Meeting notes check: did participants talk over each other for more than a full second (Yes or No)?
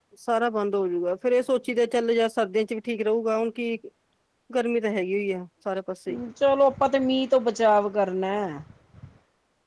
No